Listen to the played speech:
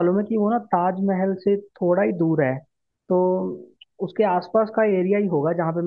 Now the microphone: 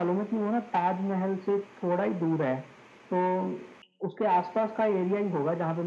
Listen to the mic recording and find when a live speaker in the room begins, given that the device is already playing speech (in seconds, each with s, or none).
none